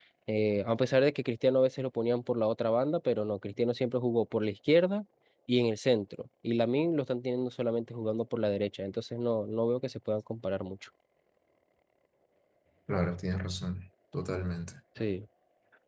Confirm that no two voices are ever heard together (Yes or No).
Yes